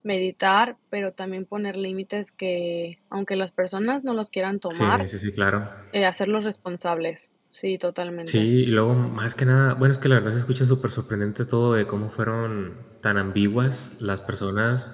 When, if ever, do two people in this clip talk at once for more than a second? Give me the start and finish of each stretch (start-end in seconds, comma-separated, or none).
none